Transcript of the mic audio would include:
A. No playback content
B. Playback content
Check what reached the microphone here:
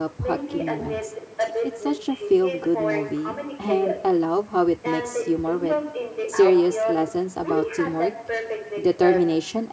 B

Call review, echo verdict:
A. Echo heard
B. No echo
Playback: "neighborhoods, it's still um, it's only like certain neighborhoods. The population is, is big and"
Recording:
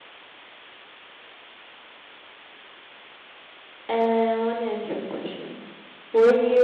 B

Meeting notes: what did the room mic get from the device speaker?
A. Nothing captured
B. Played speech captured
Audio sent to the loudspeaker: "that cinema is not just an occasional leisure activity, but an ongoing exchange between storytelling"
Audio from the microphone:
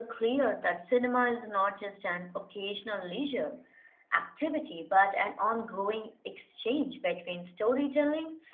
B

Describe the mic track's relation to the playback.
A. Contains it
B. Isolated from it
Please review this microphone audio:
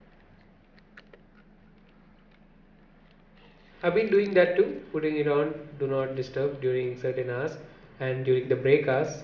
B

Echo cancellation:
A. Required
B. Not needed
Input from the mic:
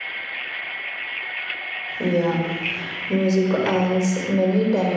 B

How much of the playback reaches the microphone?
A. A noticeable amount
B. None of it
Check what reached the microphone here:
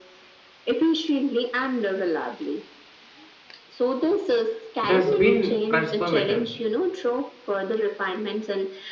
A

